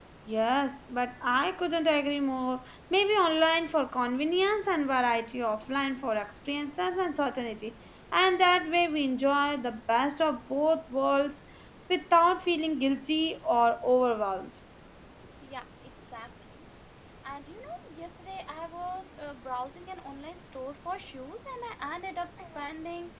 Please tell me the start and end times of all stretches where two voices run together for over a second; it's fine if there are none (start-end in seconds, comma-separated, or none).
none